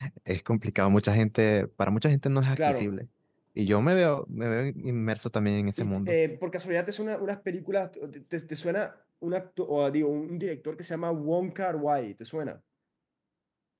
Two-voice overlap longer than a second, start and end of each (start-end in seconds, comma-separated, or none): none